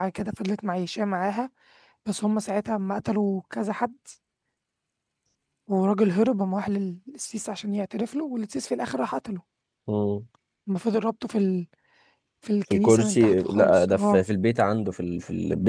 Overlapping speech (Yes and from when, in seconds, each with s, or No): Yes, from 12.7 s